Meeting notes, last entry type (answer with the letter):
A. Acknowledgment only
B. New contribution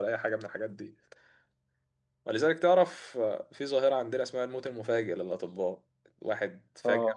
A